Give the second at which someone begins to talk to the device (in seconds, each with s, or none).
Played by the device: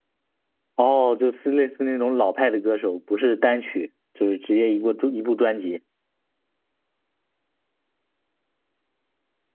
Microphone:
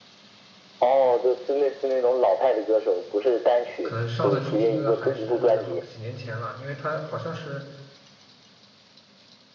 3.8 s